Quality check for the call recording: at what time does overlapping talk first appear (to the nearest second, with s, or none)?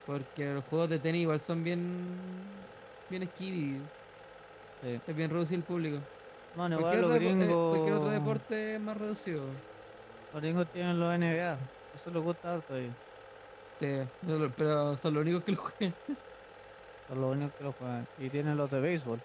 7 s